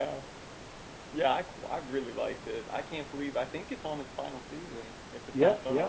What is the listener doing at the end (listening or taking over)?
taking over